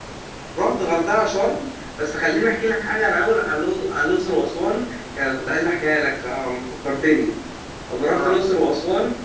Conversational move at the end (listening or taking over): listening